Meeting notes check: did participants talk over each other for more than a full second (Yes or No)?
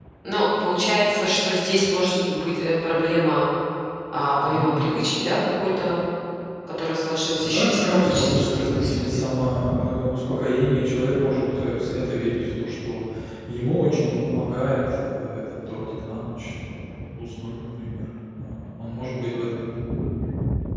Yes